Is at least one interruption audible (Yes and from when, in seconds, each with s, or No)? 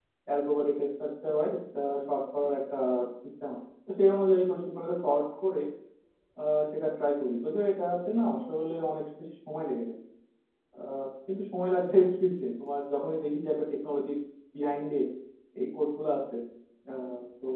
No